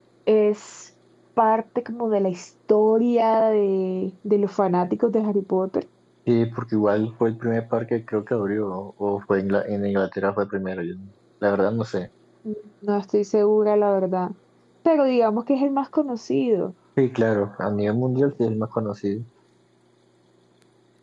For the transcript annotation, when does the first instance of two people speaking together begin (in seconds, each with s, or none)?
none